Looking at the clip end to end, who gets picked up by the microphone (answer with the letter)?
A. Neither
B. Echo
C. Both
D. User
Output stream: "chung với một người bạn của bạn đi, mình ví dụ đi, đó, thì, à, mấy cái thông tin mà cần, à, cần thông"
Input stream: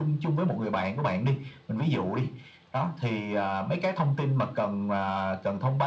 B